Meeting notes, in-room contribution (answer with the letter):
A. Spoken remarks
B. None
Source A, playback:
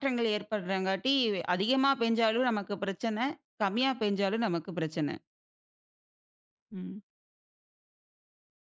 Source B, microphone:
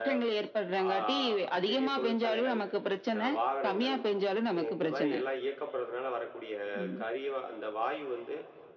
A